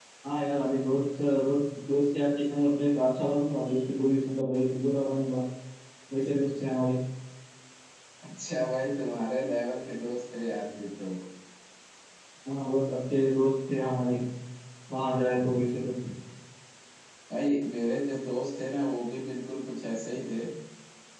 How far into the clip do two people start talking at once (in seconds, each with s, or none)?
none